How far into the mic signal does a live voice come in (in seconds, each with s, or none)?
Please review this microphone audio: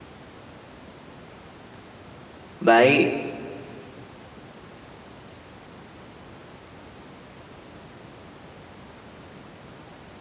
2.7 s